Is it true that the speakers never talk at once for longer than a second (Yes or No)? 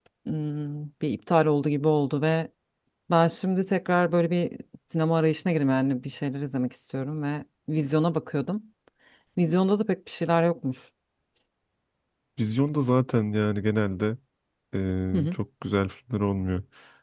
Yes